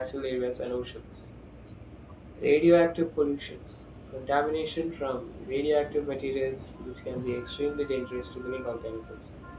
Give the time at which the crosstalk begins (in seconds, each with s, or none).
none